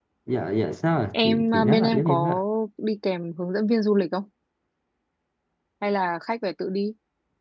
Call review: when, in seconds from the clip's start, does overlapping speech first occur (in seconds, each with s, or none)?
1.1 s